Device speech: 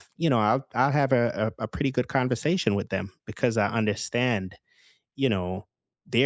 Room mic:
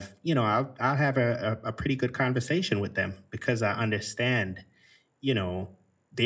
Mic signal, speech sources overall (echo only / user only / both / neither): echo only